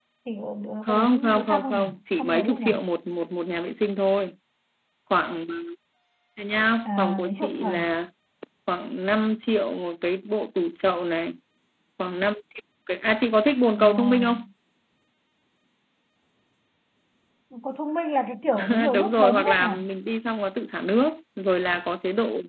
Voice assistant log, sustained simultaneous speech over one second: present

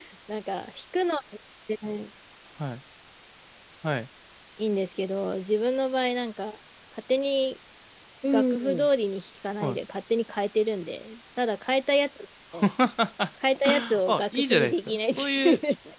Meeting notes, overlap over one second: present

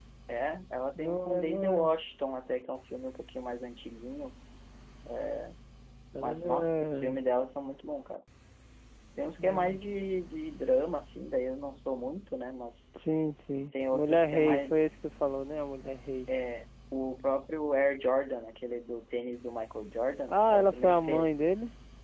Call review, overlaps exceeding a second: present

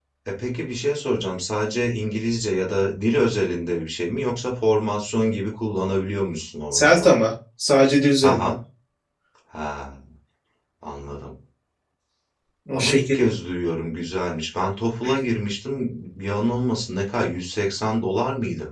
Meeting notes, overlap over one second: none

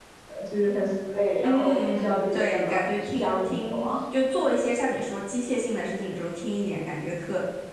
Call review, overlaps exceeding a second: present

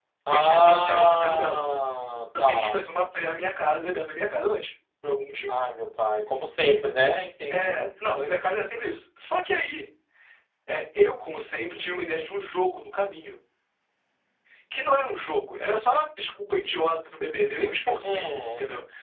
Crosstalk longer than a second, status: present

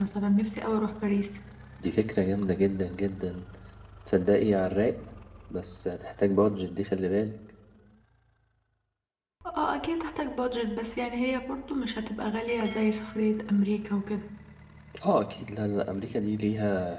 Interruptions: none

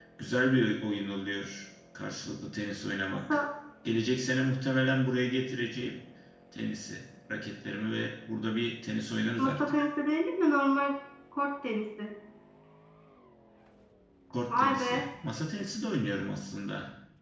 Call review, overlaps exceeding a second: none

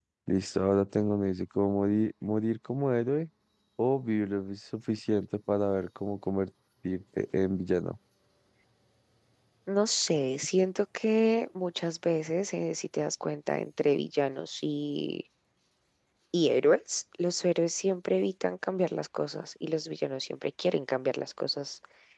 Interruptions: none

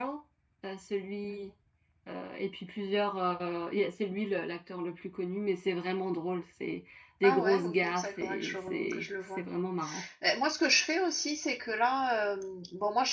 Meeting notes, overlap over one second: present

